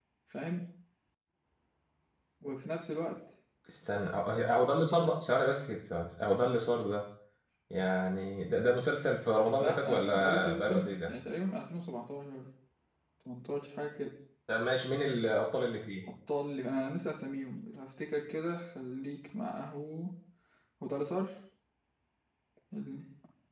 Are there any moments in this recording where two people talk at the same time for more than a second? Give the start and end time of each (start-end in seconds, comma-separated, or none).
9.6-11.1